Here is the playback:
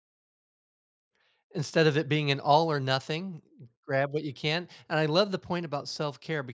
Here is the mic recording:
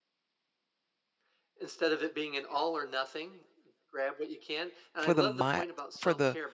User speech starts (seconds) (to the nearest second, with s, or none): 5 s